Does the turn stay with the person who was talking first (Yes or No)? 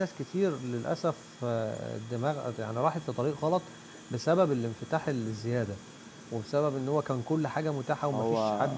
Yes